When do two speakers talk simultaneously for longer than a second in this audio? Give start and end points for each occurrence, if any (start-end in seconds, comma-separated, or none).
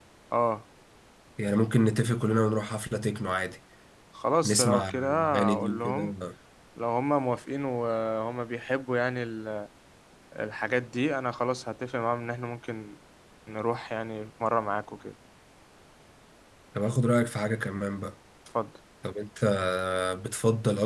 4.4-6.1